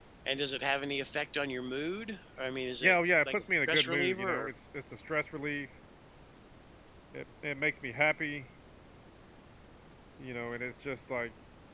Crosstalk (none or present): present